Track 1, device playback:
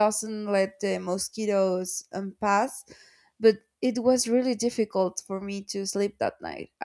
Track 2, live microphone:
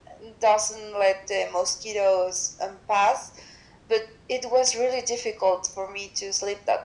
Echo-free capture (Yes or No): No